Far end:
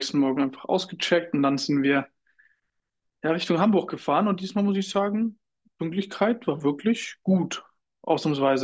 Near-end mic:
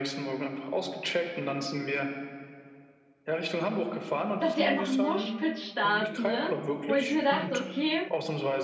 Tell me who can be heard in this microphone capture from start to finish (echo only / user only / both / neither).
both